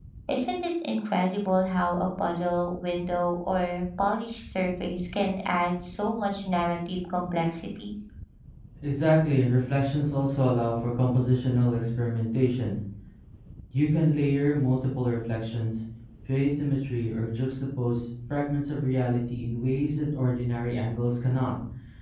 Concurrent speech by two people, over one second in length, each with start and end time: none

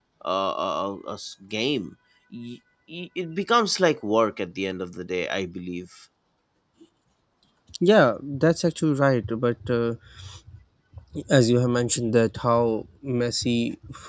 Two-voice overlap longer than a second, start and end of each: none

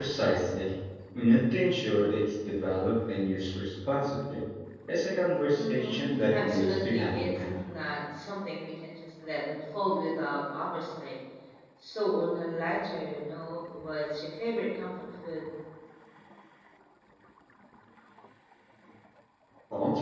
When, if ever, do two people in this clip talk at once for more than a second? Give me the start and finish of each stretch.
5.5-7.5

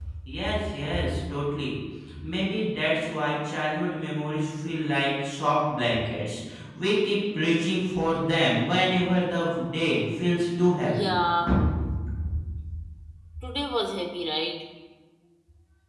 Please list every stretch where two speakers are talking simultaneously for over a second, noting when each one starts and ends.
none

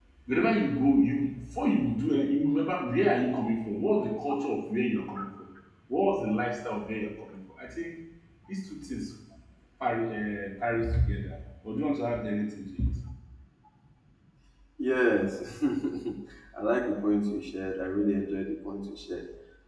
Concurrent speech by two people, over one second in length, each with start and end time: none

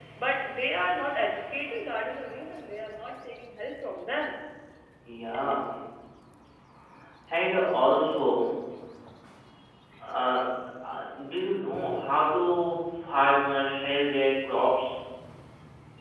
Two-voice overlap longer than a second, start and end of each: none

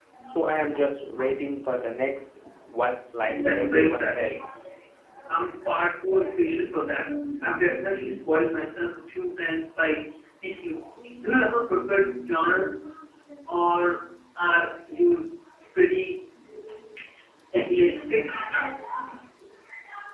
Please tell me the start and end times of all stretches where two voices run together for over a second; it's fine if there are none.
3.2-4.4

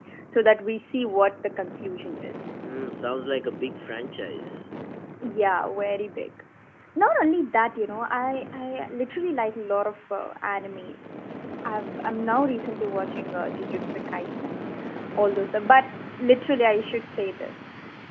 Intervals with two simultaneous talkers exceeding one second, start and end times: none

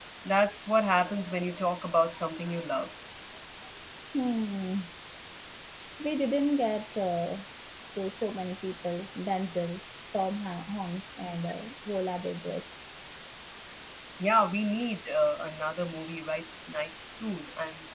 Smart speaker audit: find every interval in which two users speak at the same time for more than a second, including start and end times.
none

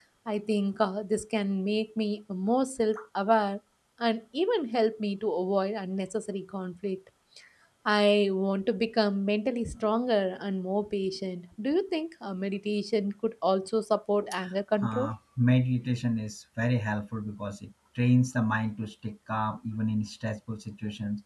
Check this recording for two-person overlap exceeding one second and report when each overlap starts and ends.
none

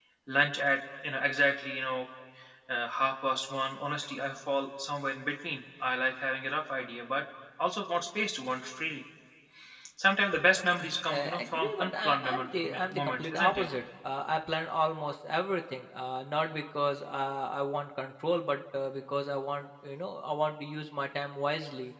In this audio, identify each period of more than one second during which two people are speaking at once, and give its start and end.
10.5-13.7

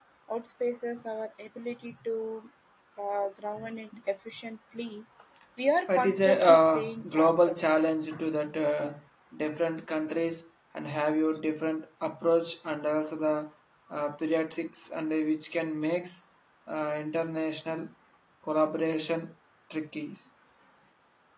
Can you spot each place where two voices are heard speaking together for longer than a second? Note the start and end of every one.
5.9-7.6

